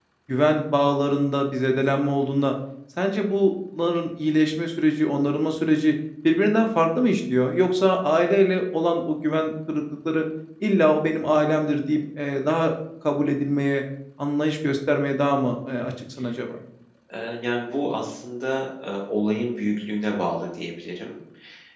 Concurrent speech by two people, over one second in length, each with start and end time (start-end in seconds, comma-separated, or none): none